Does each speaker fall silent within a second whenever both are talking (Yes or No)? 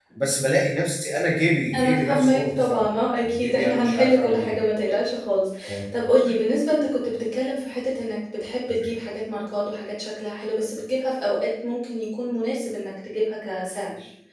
No